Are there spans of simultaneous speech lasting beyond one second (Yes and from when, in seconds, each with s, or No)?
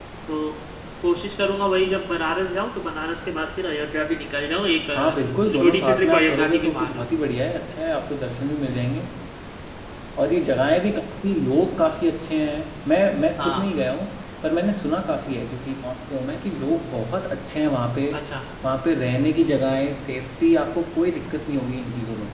Yes, from 5.0 s